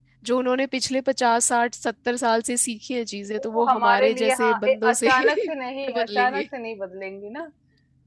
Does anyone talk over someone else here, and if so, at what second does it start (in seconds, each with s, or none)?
3.4 s